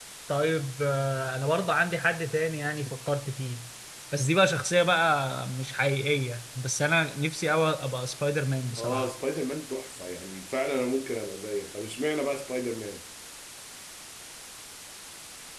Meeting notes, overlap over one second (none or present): none